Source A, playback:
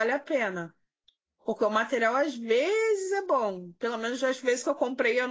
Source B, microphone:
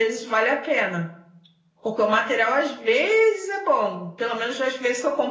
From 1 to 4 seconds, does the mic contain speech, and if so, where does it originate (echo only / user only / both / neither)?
echo only